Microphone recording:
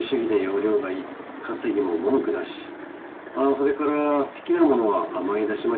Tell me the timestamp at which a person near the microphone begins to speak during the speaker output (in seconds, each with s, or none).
none